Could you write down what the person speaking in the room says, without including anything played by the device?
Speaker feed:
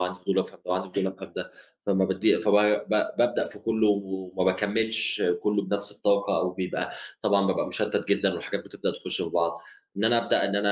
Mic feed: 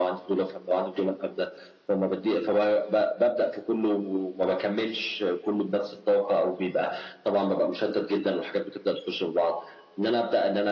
none

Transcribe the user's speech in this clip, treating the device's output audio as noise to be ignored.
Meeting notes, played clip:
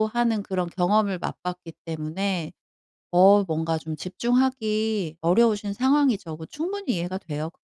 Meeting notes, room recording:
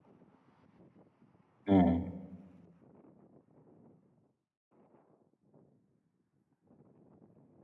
네.

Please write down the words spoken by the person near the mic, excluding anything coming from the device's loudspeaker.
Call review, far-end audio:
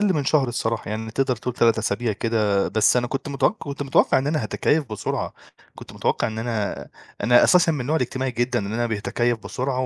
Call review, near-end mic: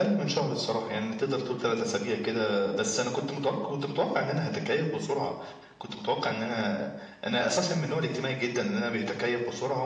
none

